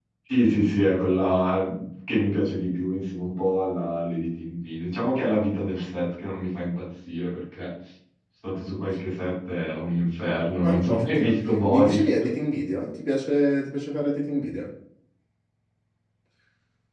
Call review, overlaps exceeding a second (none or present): present